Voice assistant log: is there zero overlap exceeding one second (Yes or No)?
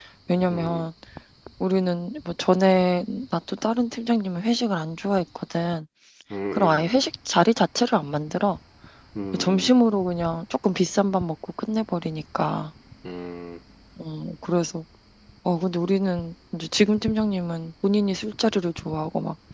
Yes